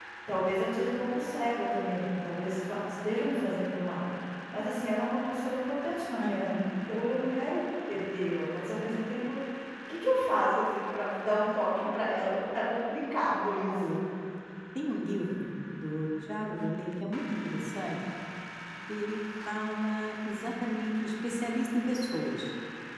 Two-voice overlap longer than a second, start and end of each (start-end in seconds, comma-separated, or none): none